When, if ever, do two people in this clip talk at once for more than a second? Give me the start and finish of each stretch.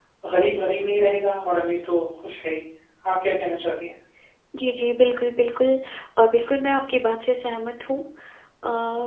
none

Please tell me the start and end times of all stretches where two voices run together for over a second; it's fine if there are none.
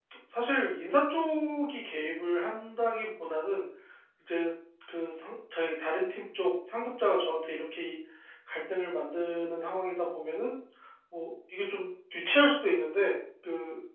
none

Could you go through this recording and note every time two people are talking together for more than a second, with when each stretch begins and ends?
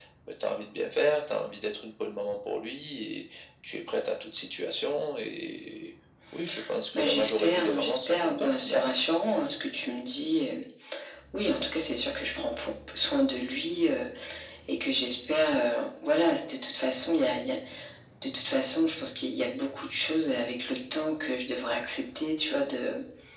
7.0-8.9

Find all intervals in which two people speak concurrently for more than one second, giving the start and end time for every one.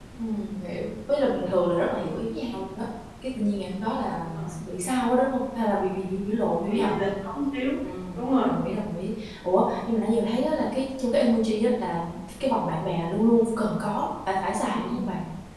none

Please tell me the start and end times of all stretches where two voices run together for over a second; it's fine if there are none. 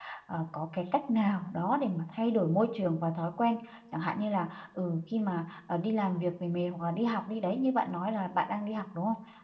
none

